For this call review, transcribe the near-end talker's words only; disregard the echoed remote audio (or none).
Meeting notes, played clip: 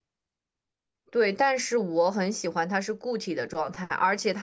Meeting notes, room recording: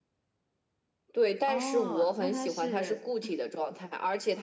哦，那它是